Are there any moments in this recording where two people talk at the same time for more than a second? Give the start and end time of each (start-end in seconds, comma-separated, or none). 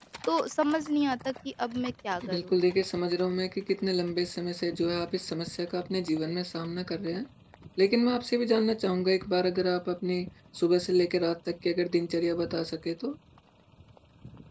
none